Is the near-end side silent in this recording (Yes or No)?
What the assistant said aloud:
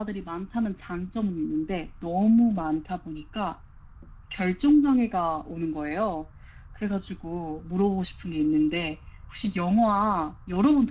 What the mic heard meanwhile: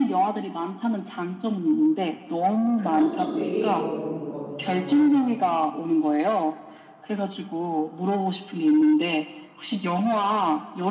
No